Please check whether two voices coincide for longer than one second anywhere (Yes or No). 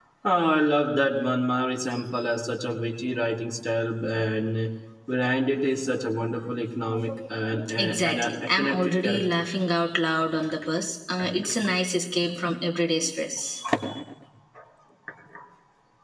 Yes